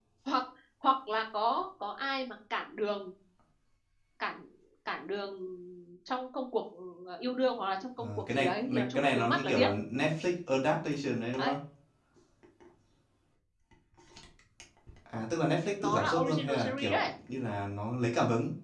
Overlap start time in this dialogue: 8.0 s

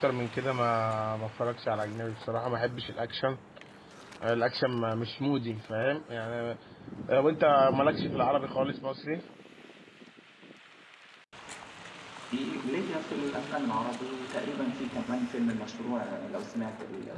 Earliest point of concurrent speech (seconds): none

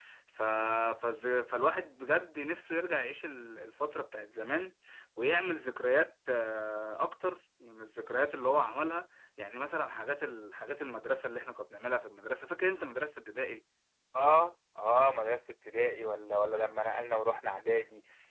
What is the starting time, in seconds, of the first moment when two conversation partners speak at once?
none

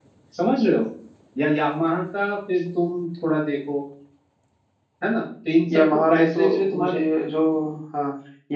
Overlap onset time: 5.7 s

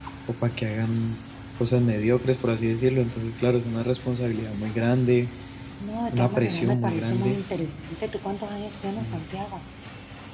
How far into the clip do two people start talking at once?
6.1 s

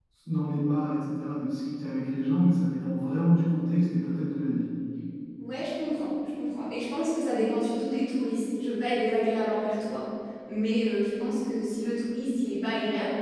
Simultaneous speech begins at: none

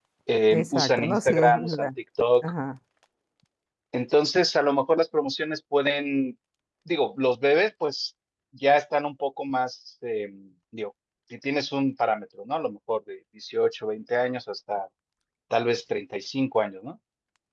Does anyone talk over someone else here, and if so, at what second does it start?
0.5 s

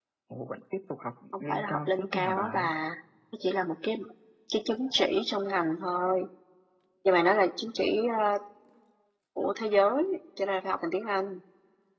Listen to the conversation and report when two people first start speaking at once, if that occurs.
1.5 s

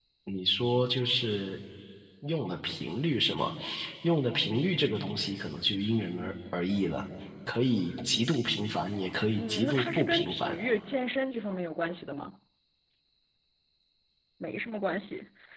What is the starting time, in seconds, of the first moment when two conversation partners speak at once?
9.4 s

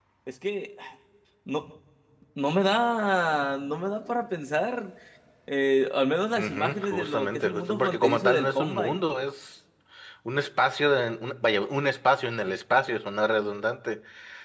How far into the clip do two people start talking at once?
6.3 s

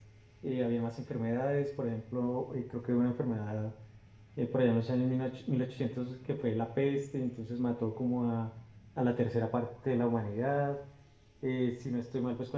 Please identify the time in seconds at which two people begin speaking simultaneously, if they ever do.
none

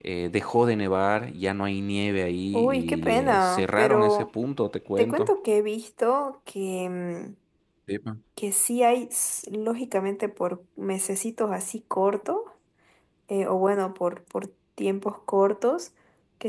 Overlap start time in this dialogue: 2.5 s

